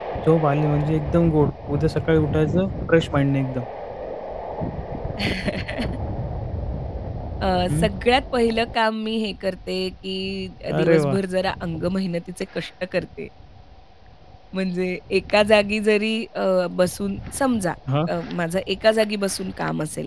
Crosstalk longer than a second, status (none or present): none